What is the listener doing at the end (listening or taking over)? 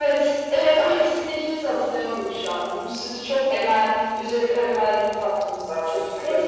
taking over